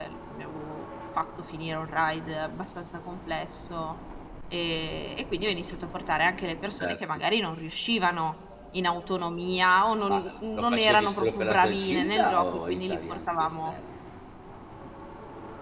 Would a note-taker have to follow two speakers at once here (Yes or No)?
Yes